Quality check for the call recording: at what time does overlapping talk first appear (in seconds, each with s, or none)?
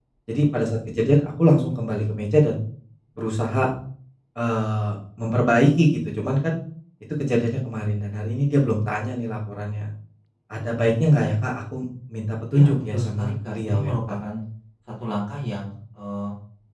12.5 s